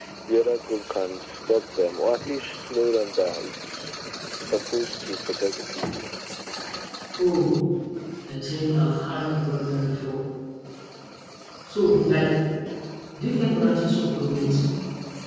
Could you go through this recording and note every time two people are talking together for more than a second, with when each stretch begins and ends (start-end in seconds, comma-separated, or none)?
none